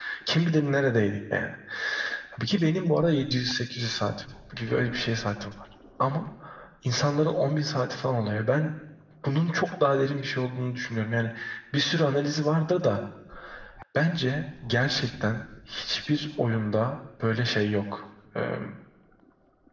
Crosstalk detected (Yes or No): No